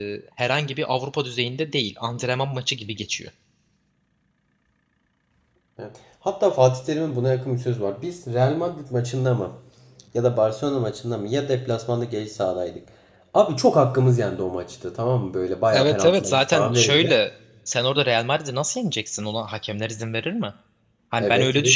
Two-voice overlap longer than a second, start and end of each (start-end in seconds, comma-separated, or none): 15.7-17.2